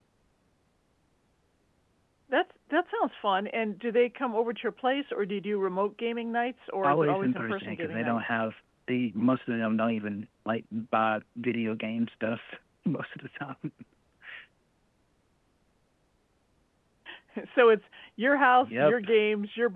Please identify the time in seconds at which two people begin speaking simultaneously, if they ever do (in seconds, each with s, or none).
6.8 s